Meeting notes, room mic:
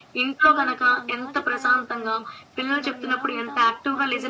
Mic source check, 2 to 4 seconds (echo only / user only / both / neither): both